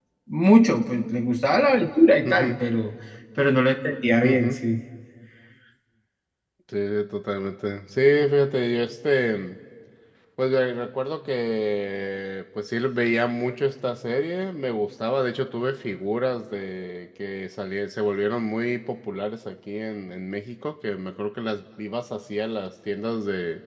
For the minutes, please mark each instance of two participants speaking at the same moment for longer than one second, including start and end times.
none

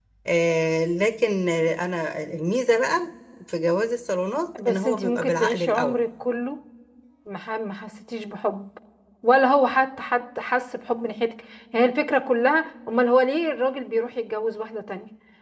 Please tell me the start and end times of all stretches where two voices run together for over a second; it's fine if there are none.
4.7-6.0

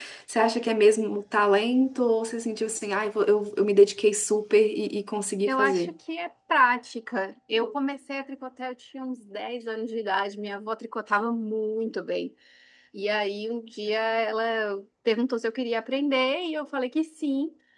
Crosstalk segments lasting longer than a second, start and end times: none

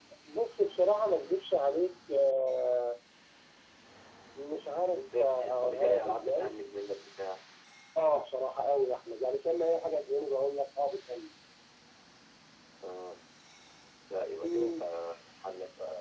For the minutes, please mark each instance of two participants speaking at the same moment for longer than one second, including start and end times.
4.9-6.5

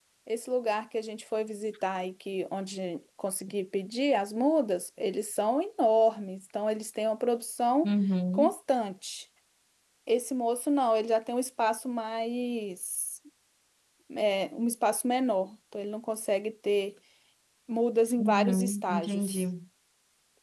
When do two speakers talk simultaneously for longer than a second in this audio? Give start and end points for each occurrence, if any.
18.2-19.4

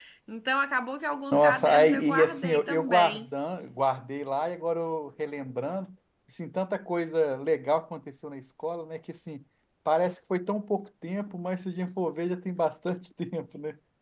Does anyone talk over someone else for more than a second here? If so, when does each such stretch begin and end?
1.3-3.3

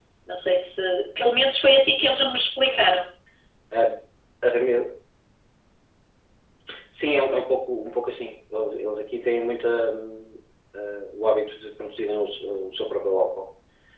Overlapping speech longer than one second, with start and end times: none

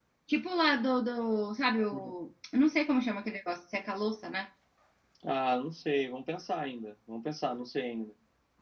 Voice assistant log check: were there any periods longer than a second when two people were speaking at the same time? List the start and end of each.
none

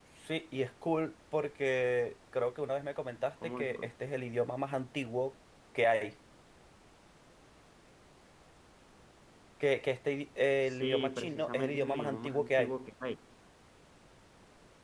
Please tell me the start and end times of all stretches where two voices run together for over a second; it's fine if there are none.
10.7-12.7

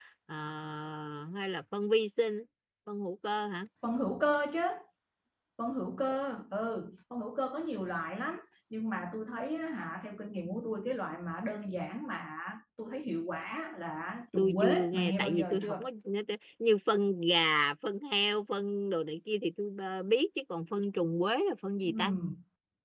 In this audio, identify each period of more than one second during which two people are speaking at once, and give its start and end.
14.4-15.9

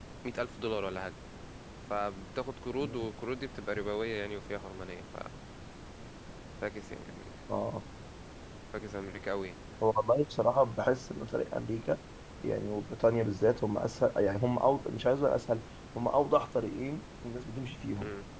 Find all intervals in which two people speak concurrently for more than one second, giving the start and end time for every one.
none

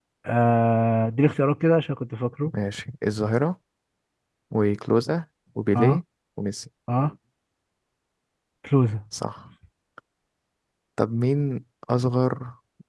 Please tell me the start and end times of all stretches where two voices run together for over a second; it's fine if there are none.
none

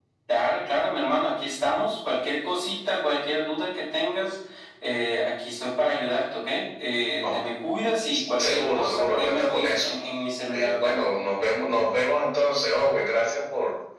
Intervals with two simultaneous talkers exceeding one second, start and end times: 8.4-9.9

